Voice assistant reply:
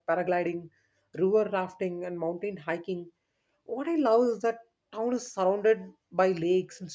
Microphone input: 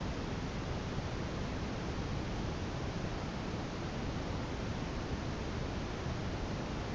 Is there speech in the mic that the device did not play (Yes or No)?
No